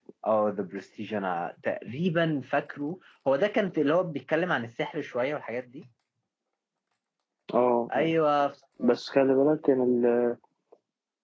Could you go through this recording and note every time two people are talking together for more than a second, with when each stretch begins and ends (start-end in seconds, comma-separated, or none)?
none